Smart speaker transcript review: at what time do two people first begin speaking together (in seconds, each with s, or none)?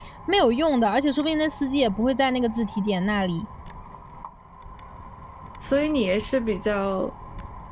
none